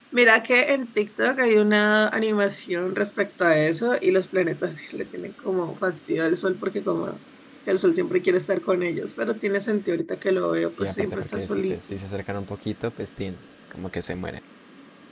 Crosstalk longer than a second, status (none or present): present